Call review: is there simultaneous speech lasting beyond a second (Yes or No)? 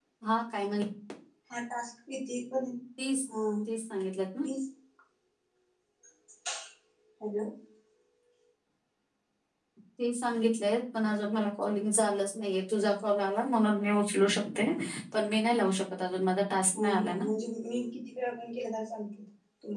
No